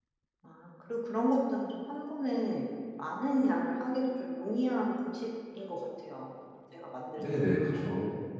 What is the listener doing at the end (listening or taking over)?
taking over